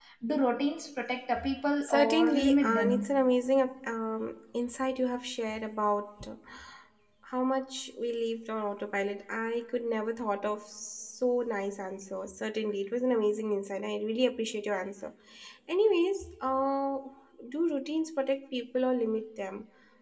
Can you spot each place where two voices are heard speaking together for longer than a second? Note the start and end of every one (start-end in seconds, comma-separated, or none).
1.8-3.2